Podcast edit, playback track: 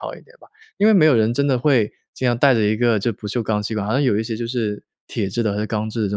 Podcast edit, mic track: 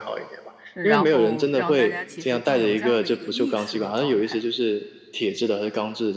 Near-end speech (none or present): present